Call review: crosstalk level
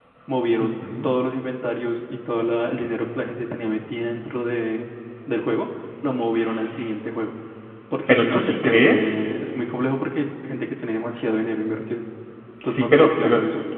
present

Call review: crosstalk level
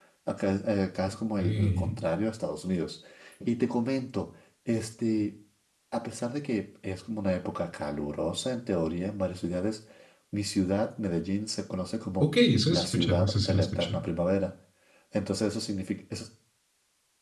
present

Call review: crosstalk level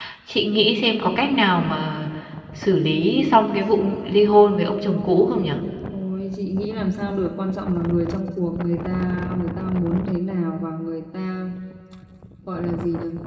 none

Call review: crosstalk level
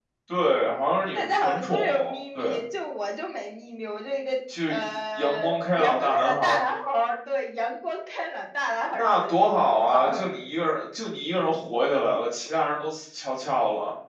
present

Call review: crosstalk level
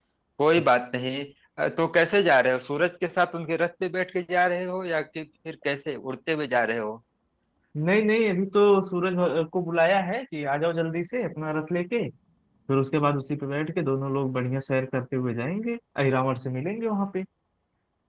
none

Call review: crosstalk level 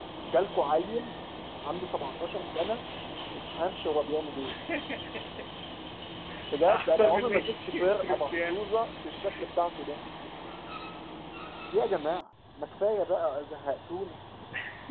present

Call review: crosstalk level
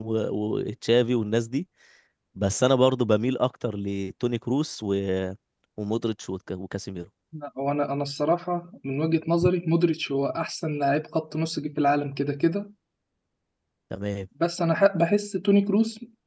none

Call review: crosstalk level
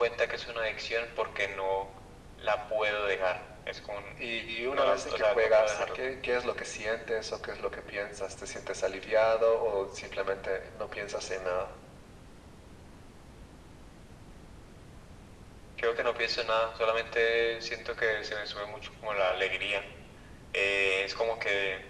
present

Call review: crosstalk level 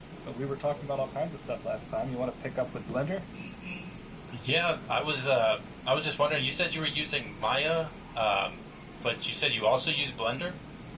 none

